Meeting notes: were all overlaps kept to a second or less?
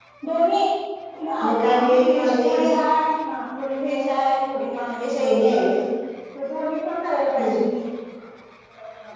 No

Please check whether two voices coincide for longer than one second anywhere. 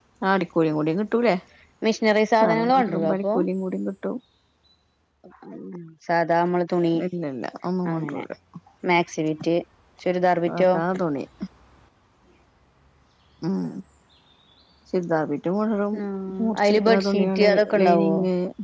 Yes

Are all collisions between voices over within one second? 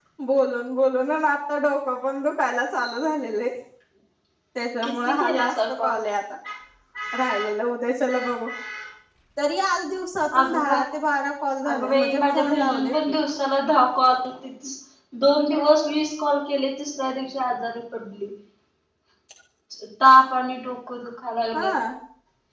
No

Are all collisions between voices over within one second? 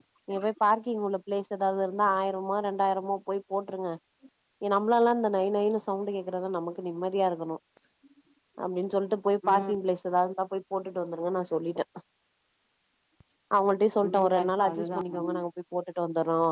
No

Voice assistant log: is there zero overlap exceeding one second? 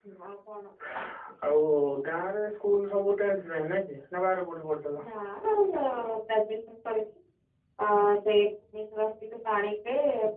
Yes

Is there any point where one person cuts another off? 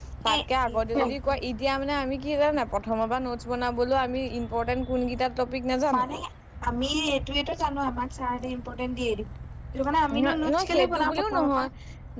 Yes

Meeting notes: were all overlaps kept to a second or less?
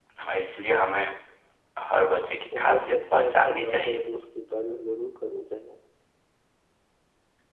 No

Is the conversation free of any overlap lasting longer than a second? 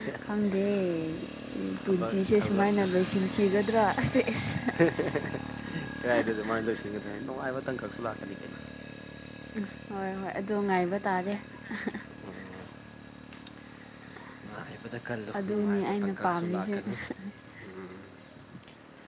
No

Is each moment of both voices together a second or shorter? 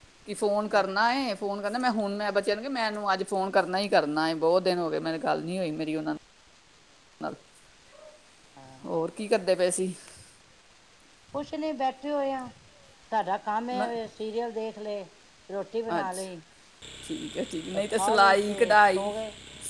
No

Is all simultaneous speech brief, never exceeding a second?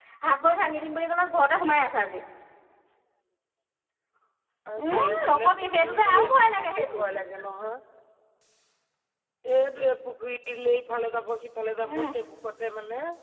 No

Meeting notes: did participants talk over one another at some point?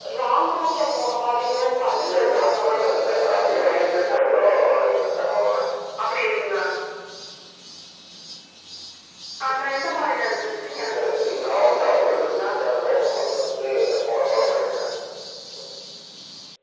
Yes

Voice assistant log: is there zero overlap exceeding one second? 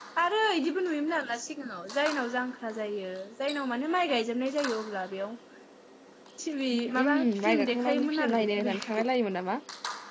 No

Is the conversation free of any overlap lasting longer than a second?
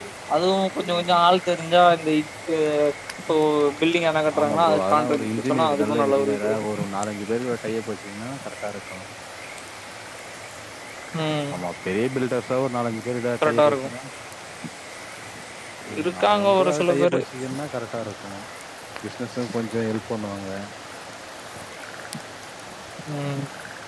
No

